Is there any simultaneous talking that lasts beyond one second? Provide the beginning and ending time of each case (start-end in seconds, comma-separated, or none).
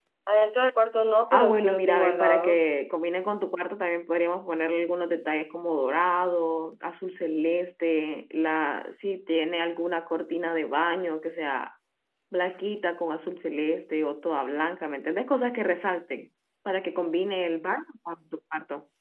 1.3-2.6